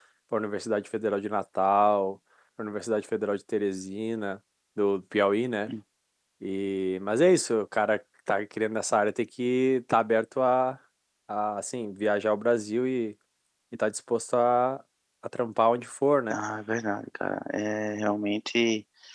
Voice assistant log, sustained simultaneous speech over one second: none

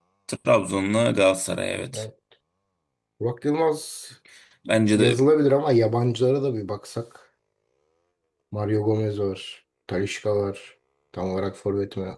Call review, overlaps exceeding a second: none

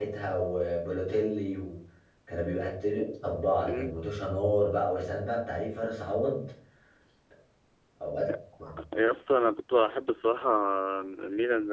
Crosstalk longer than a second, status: none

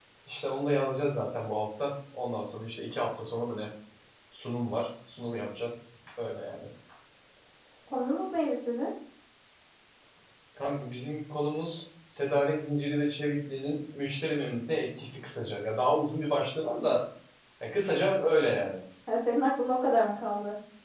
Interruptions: none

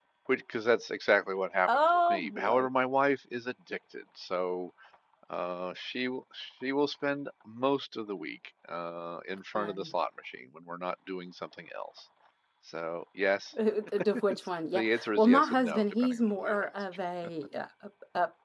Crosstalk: present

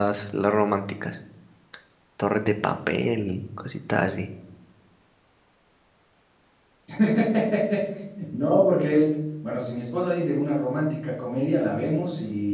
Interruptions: none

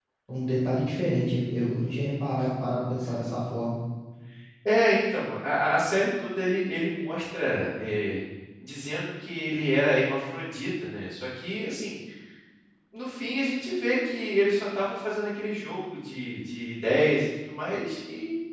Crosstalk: none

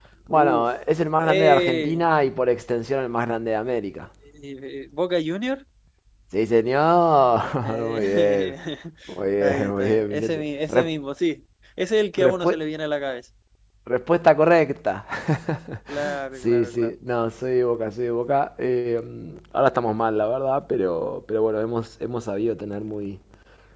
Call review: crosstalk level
present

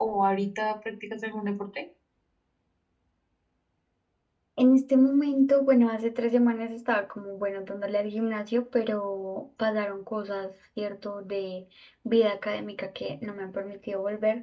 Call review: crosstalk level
none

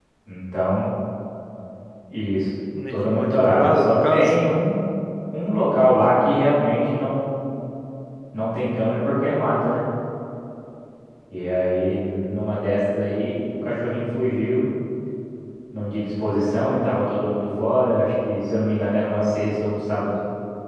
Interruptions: present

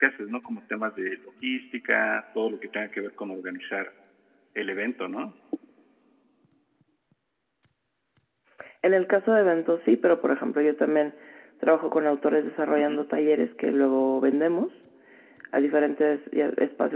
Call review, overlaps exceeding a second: none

